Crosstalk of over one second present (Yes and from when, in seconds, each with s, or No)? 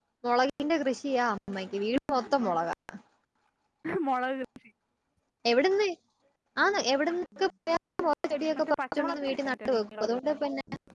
Yes, from 8.6 s